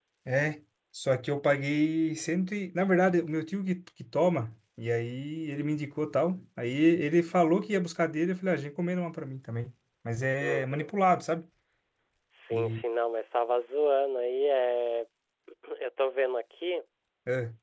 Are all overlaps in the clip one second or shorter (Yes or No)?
Yes